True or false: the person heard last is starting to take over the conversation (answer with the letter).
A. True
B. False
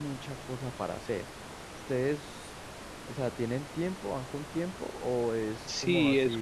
A